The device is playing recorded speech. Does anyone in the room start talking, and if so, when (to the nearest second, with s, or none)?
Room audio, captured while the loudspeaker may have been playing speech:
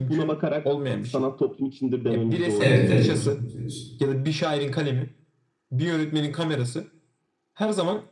3 s